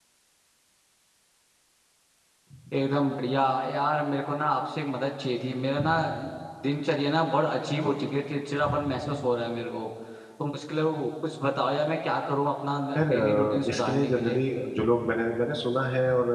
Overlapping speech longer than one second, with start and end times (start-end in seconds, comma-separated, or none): 13.0-14.4